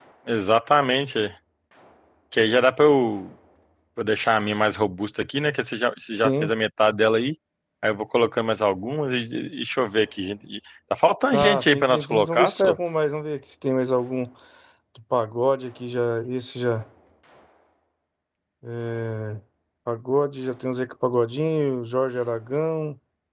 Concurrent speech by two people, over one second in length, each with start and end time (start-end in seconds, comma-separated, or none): 11.3-12.7